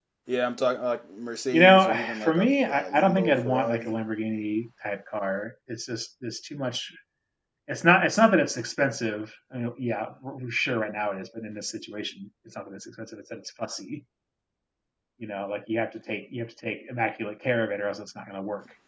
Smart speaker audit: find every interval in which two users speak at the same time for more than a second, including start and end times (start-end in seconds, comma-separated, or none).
1.5-3.9